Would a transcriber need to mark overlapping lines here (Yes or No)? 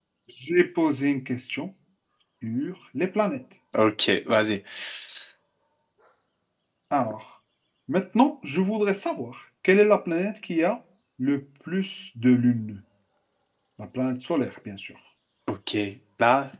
No